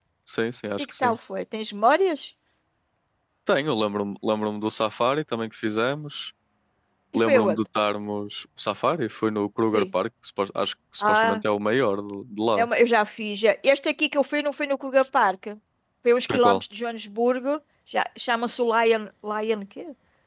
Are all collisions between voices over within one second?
Yes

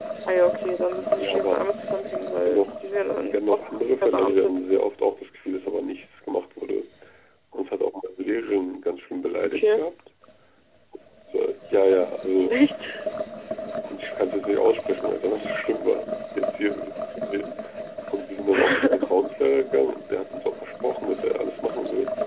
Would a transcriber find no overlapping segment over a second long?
No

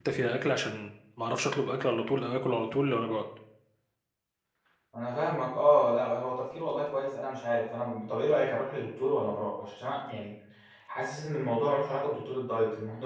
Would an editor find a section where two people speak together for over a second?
No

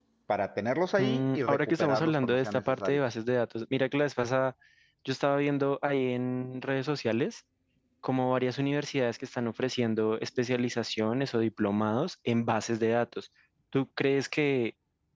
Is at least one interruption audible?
Yes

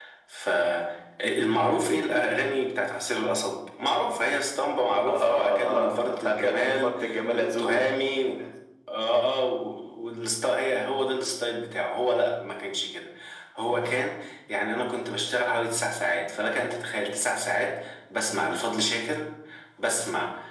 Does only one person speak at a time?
No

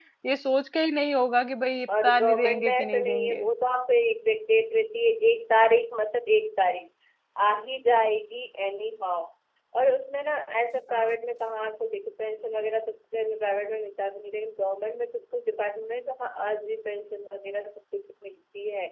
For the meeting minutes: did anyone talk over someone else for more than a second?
Yes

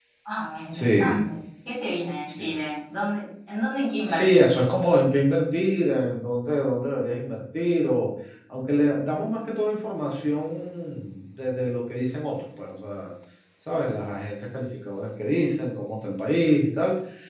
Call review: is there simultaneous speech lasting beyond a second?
No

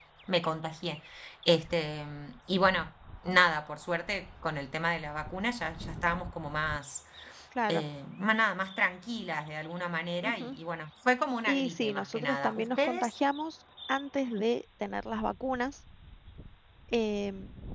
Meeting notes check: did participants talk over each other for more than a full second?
Yes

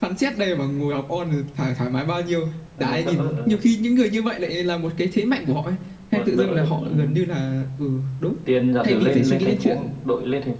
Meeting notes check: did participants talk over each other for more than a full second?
Yes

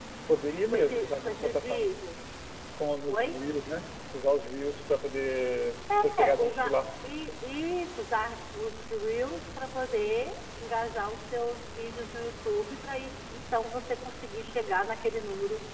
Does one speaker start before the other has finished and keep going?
Yes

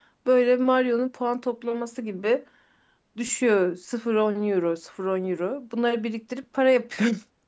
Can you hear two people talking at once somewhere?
No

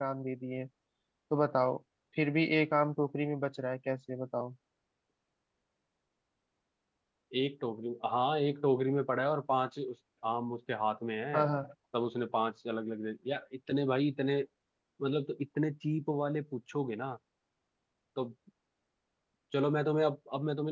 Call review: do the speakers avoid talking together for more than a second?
Yes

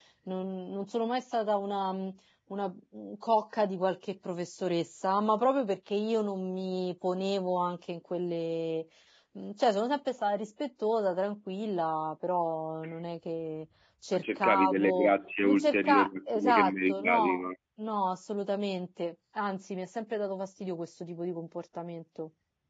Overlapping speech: Yes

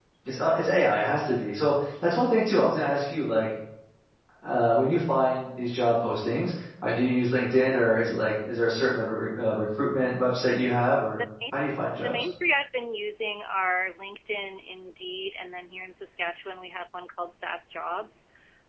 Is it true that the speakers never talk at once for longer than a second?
Yes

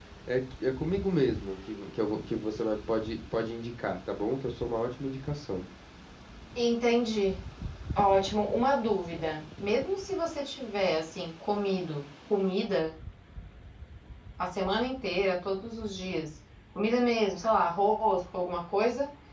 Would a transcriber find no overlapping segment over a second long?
Yes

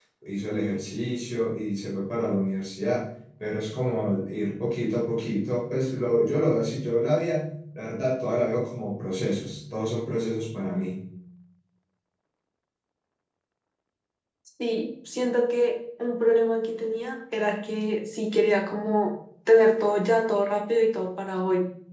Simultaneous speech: No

